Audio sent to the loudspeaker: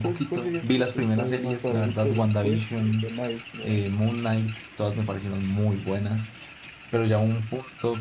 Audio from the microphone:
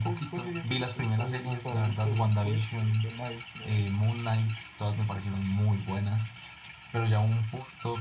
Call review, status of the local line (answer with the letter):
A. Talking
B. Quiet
B